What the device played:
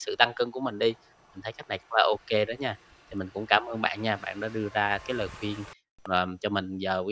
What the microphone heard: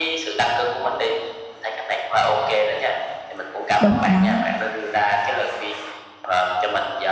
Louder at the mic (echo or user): user